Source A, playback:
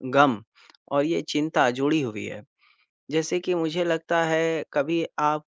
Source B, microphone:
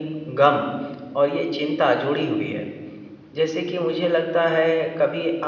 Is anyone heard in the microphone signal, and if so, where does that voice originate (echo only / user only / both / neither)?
echo only